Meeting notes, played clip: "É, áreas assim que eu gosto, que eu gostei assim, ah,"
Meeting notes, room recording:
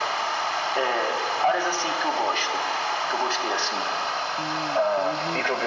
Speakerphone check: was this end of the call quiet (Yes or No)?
No